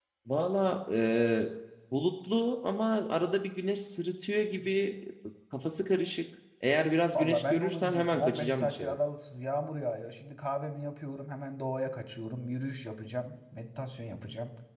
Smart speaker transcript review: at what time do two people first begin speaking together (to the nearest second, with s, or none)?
7 s